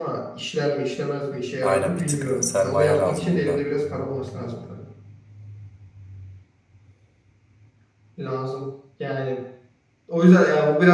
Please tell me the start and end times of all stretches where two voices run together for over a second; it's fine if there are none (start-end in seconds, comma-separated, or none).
1.6-3.6